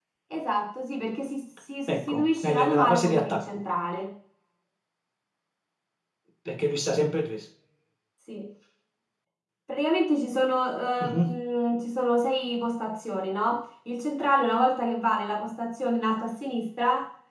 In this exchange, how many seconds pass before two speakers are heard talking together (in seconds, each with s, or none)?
1.9 s